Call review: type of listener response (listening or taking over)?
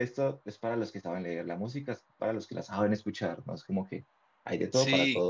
listening